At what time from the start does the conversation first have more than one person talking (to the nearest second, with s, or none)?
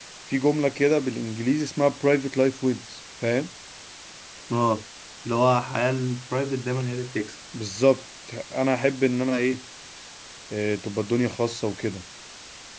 none